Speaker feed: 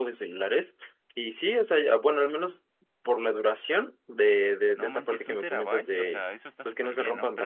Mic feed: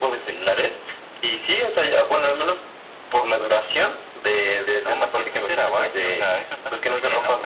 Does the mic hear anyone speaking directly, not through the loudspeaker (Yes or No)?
No